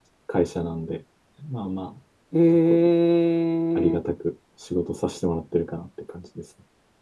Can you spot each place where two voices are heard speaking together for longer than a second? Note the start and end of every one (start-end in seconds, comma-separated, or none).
none